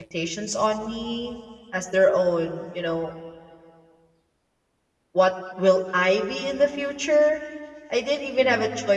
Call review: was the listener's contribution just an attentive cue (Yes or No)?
Yes